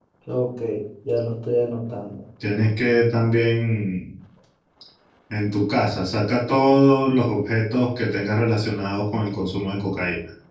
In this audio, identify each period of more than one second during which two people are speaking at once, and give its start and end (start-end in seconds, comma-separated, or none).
none